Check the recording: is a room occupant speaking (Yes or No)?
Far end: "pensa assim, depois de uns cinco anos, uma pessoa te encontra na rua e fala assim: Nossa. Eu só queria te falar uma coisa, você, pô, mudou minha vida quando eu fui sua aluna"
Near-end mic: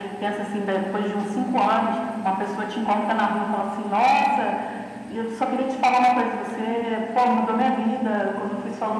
No